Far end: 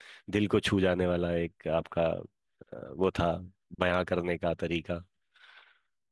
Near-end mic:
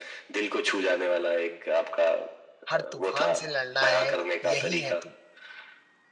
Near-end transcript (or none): हर तूफान से लड़ना है यही है तू